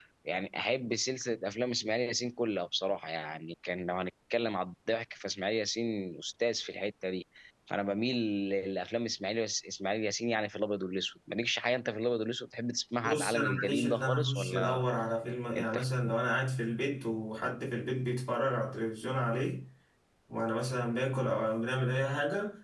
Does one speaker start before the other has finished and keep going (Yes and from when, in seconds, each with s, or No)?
Yes, from 13.0 s